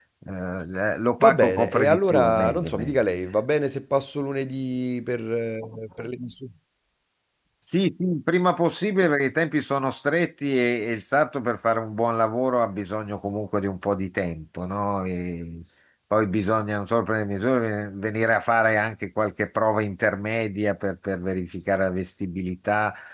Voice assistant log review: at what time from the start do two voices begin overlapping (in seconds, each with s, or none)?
1.2 s